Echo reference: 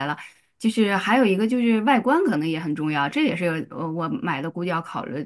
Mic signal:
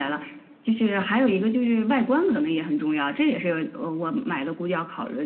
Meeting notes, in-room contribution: none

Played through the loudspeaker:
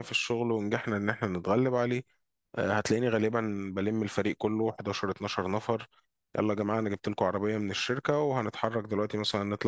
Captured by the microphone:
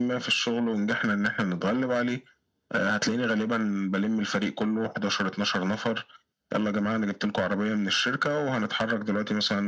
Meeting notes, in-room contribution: none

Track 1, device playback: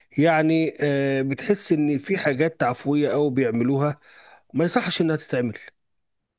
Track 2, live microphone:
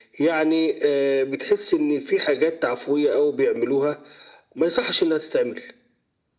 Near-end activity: none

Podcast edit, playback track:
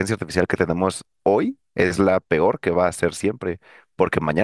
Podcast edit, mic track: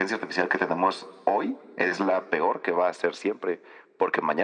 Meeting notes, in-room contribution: none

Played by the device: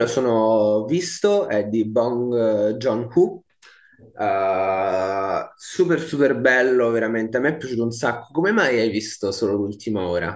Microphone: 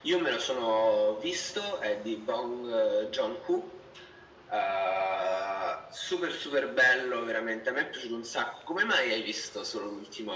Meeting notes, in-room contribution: none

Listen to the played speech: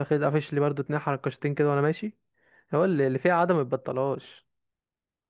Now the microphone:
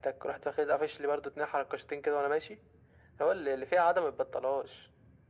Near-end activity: none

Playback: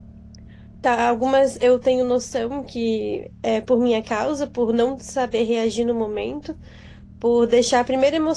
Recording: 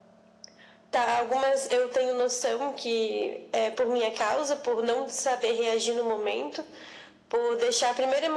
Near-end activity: none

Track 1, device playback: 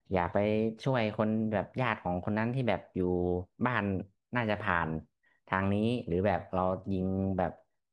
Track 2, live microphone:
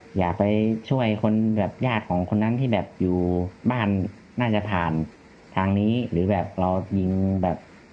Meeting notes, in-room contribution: none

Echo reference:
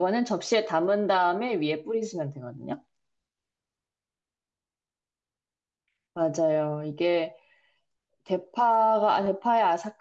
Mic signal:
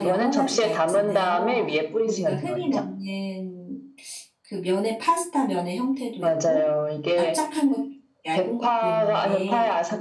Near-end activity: present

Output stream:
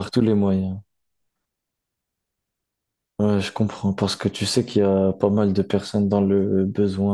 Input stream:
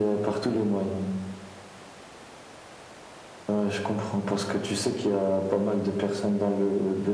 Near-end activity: none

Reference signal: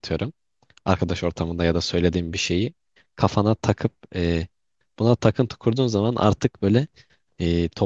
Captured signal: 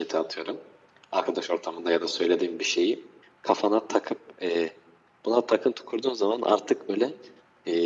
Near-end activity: none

